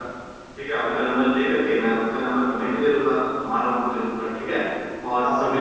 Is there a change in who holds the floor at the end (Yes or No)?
No